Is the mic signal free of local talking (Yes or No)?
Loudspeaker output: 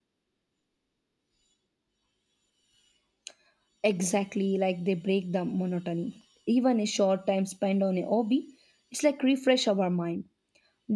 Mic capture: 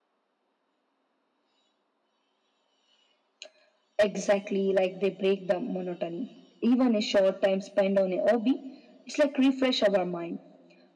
Yes